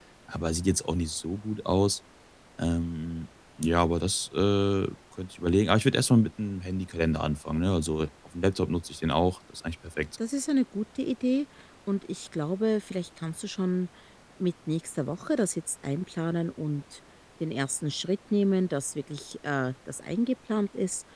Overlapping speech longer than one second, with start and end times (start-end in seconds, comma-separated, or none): none